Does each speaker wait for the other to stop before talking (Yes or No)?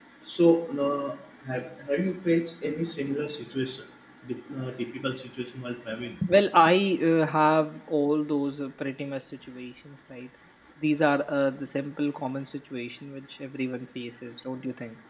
Yes